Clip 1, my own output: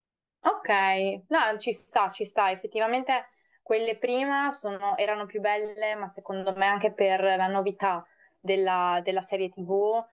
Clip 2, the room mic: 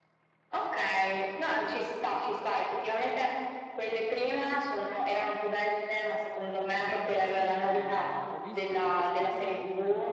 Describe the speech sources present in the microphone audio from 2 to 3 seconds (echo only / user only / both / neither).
echo only